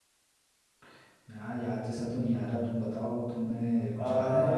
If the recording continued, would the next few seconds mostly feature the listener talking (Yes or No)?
Yes